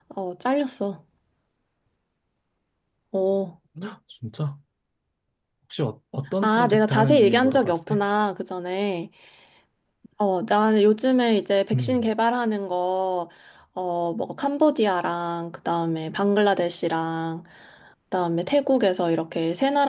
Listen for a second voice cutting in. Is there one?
Yes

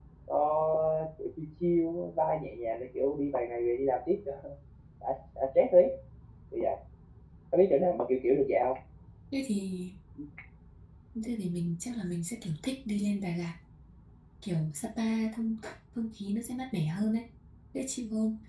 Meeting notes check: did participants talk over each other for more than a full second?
No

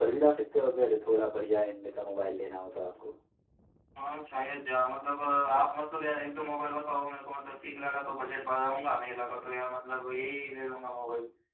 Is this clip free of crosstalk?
Yes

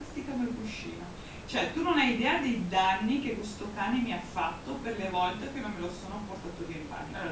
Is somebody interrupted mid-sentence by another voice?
No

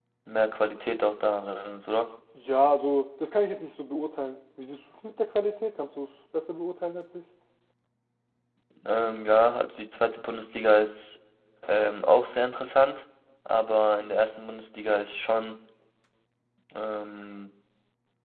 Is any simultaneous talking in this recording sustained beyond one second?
No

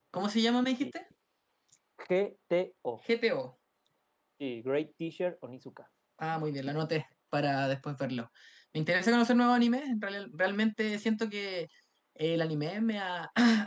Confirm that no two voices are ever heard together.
Yes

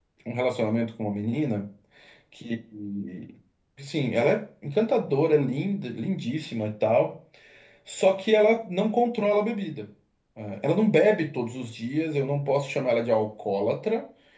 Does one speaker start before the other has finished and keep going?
No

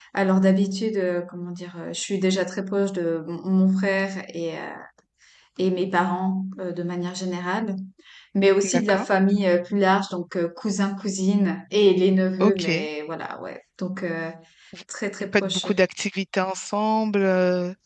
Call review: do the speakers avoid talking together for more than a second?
Yes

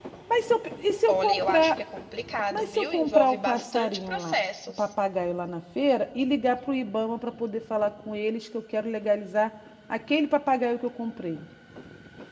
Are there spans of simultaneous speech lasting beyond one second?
Yes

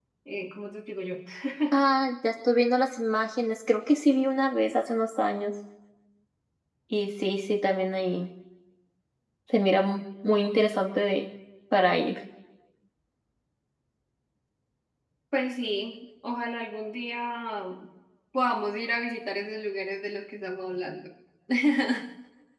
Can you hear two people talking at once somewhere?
No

